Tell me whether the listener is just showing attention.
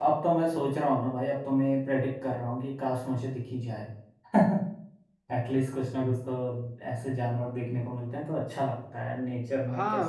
No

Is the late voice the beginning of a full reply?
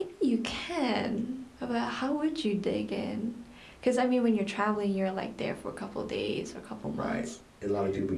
Yes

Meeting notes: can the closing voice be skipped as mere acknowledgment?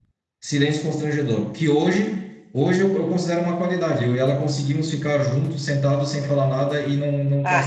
No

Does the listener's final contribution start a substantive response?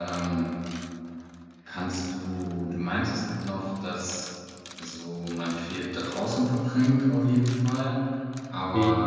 No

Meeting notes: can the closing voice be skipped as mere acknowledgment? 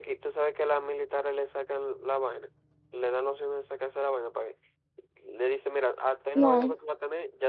Yes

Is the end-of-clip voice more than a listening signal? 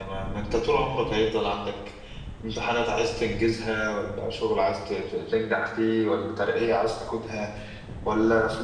No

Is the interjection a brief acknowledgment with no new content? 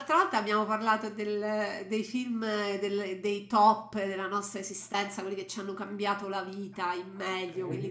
Yes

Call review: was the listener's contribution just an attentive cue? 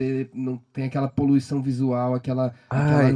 Yes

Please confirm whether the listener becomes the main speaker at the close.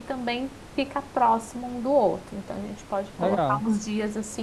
No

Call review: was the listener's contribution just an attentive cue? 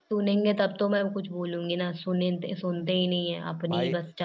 No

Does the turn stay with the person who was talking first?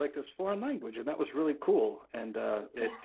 Yes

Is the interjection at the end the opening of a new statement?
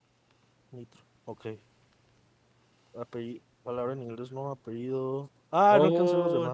Yes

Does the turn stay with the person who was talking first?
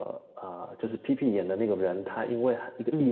Yes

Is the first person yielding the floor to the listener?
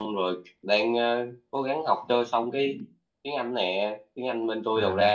No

